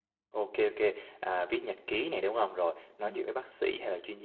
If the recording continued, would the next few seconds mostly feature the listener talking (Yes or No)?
No